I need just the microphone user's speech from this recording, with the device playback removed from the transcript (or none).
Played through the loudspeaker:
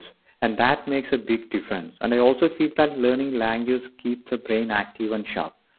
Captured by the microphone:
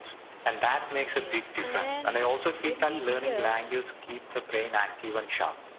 Yes, and when we hear